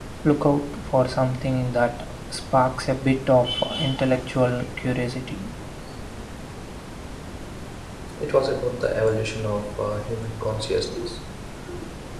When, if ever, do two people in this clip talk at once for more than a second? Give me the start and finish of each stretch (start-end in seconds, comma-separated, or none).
none